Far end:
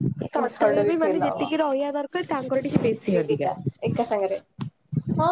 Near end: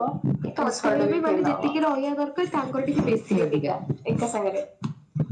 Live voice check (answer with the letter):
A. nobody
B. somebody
A